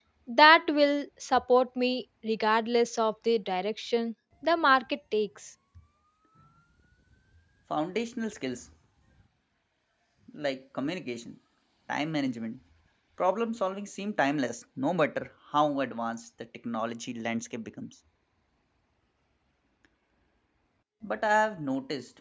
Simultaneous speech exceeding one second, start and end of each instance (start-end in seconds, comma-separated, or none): none